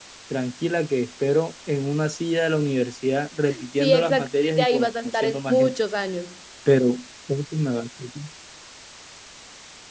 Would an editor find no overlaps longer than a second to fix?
No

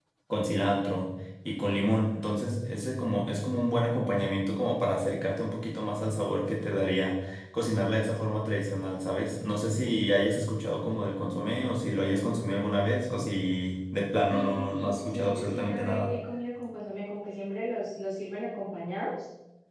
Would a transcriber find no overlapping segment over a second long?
No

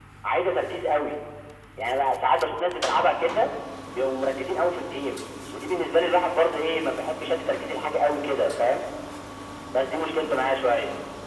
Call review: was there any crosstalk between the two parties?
No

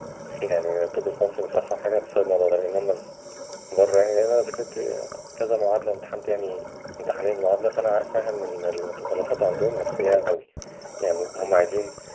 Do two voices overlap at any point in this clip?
No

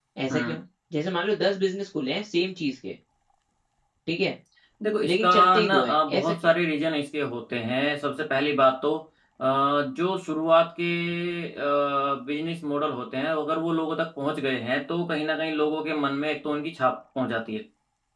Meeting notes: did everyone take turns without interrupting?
No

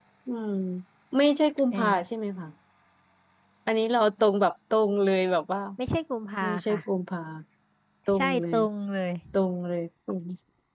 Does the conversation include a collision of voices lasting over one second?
No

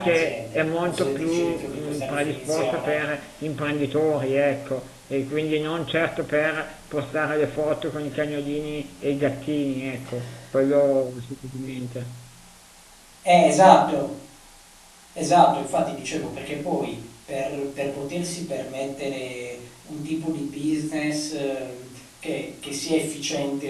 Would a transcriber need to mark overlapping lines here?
Yes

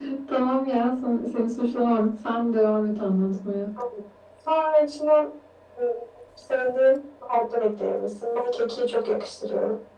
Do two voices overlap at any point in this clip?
No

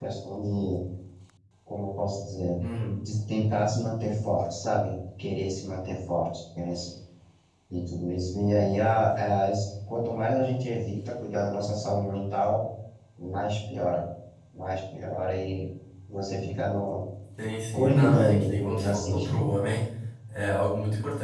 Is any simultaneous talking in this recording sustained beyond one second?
Yes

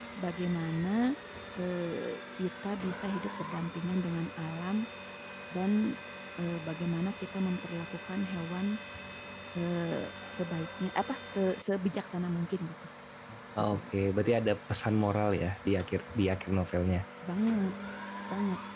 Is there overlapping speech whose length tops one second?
No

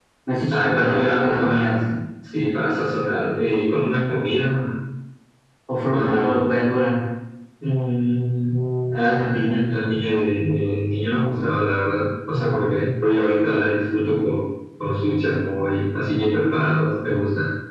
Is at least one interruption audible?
Yes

